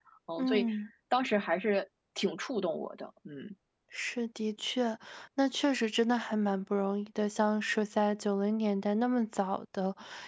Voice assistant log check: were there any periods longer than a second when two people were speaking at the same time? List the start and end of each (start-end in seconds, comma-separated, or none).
none